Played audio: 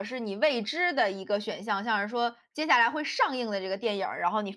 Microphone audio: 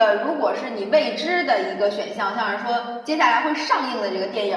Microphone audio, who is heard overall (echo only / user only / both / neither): echo only